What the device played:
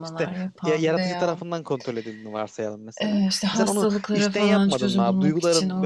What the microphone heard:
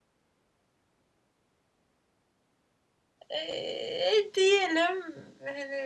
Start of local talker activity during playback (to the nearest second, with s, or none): 3 s